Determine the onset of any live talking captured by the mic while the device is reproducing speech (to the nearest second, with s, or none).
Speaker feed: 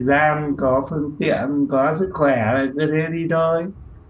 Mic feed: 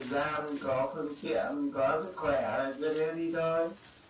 none